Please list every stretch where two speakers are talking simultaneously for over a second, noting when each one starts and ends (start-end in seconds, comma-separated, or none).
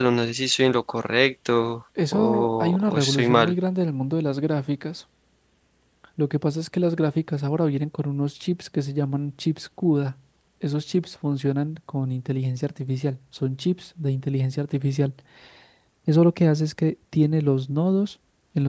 2.1-3.5